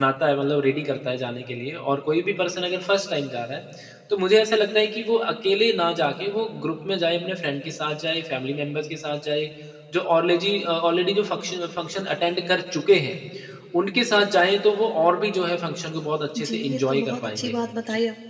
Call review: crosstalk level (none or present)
present